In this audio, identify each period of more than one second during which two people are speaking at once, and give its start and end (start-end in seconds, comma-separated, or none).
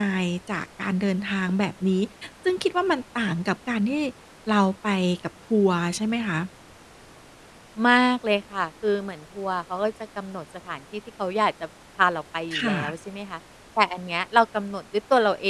none